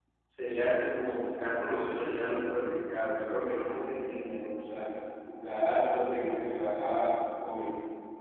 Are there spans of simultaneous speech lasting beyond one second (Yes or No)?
No